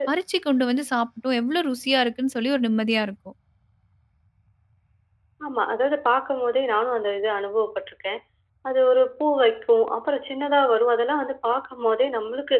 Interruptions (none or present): none